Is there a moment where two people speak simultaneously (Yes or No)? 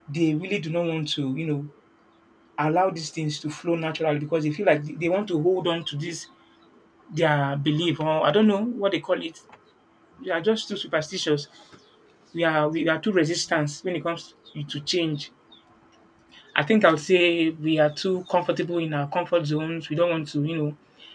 No